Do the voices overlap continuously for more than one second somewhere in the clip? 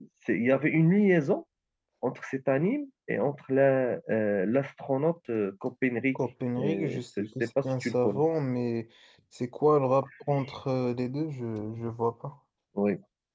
Yes, from 6.6 s

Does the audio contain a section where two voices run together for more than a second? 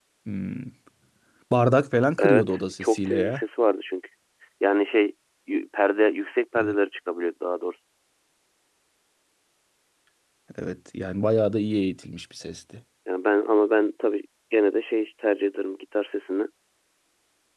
Yes, from 2.2 s

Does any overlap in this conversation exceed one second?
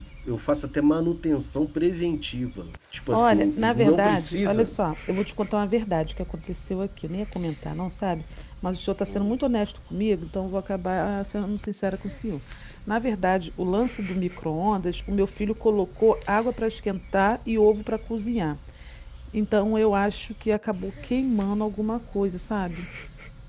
Yes, from 3.1 s

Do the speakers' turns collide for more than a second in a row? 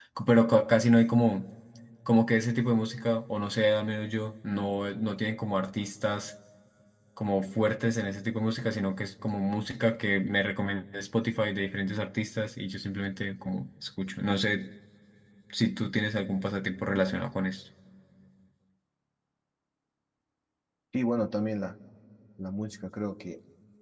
No

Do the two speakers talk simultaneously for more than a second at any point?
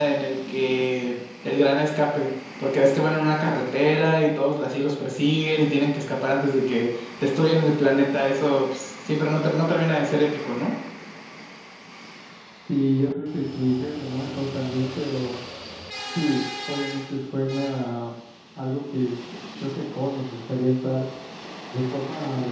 No

